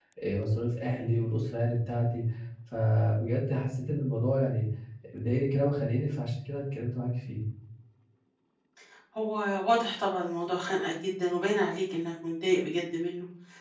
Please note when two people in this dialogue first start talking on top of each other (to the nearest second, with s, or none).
none